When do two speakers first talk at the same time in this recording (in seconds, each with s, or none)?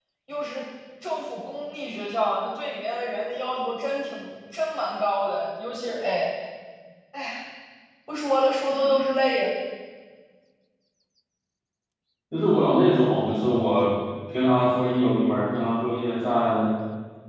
none